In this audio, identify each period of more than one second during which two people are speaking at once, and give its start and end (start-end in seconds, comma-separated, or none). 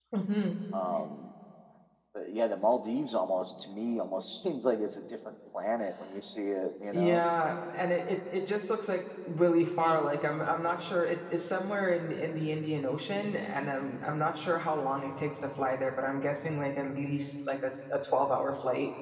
none